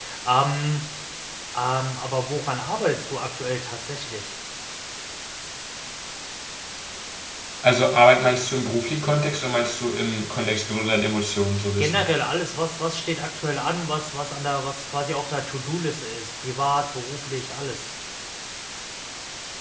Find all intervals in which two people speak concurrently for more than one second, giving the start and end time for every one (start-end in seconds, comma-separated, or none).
none